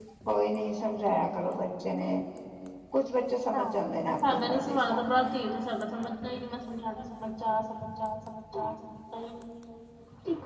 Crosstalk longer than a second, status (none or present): present